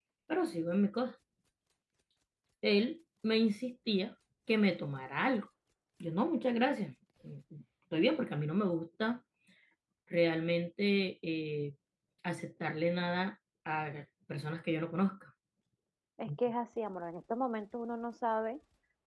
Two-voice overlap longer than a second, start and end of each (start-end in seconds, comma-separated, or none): none